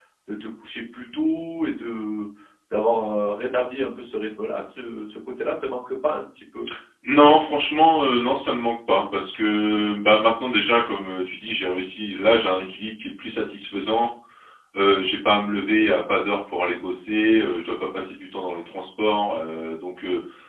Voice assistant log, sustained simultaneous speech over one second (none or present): none